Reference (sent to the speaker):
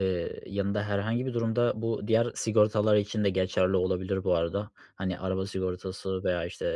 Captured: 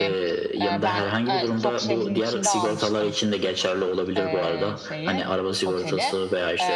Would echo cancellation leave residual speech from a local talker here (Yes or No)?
Yes